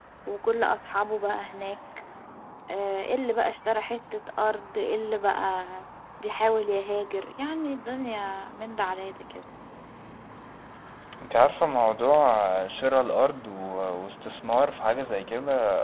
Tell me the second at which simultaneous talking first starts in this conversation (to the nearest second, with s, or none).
none